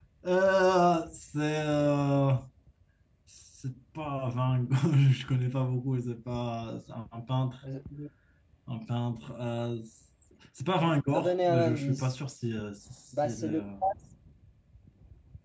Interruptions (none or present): present